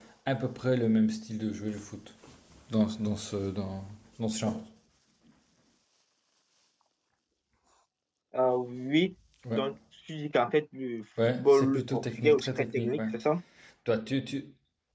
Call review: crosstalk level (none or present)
present